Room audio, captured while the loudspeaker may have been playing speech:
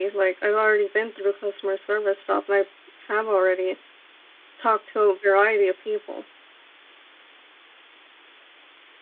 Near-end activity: present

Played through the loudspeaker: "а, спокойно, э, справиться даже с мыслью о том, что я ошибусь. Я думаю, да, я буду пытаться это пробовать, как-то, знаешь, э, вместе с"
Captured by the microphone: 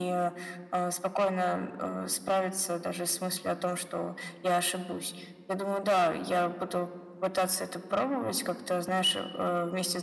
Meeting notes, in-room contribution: none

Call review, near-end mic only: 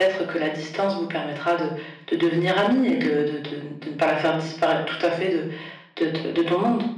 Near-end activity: present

